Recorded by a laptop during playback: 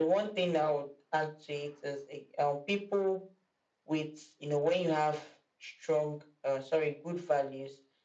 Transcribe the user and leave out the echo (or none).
none